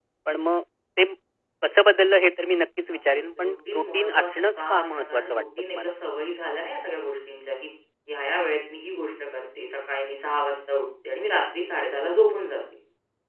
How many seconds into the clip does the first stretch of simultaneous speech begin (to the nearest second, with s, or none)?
3 s